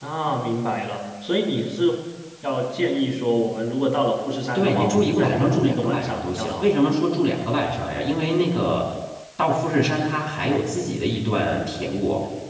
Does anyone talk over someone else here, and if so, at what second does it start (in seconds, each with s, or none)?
4.5 s